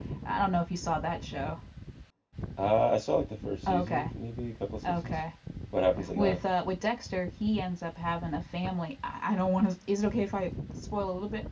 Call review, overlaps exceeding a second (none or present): none